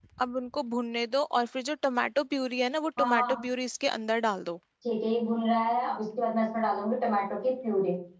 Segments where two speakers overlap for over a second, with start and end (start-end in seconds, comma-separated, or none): none